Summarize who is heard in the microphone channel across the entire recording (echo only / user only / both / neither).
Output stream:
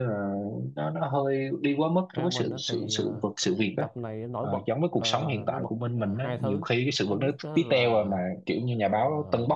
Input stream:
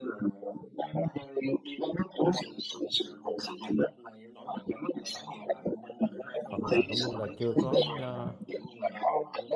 both